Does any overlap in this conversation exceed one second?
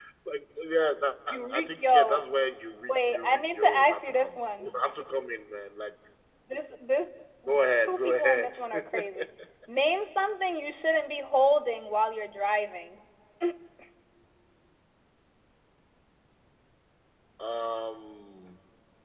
Yes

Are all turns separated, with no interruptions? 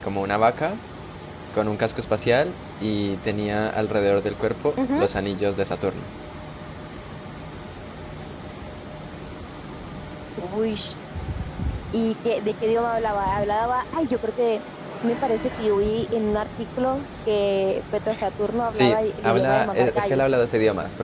No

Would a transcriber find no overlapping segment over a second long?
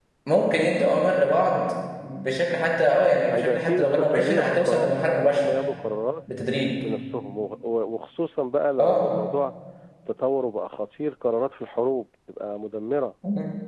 No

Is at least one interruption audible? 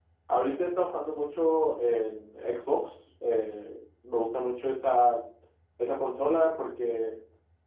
No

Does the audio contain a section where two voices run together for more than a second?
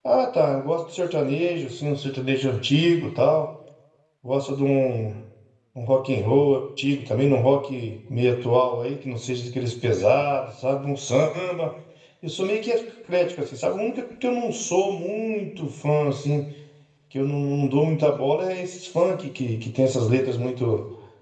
No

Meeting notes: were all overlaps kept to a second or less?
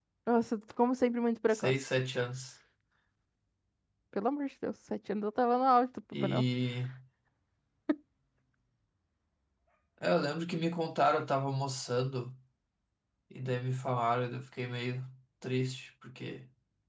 Yes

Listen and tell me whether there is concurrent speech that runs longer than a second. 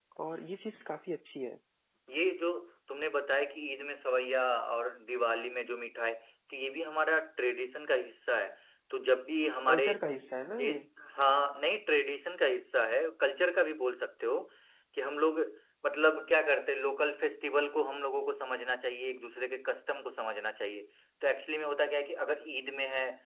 No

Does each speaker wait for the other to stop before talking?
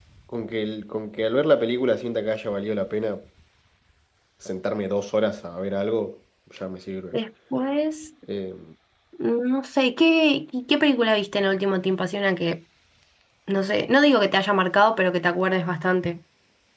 Yes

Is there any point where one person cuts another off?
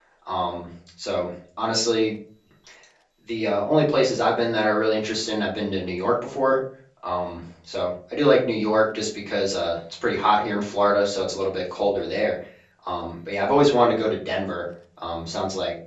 No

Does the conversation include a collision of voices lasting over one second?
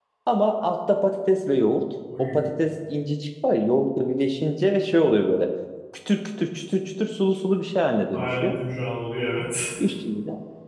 No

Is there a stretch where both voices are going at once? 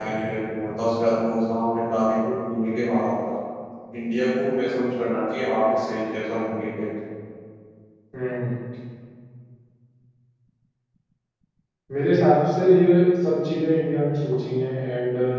No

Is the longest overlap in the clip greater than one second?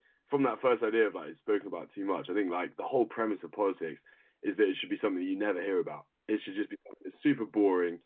No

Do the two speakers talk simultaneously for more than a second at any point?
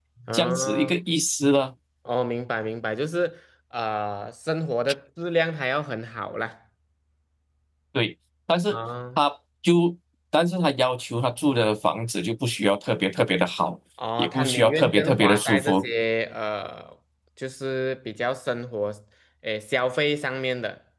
Yes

